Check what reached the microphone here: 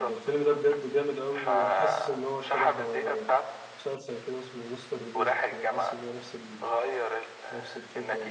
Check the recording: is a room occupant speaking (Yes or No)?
Yes